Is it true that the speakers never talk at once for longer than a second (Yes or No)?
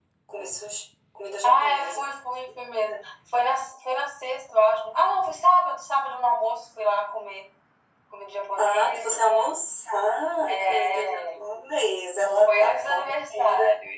No